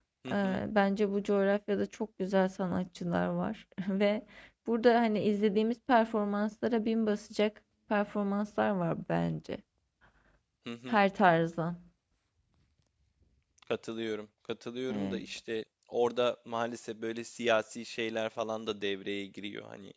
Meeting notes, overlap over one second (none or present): none